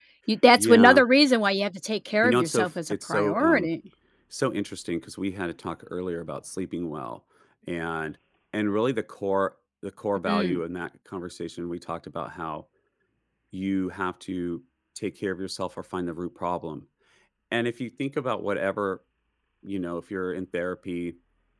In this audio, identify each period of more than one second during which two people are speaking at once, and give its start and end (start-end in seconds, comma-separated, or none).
2.2-3.7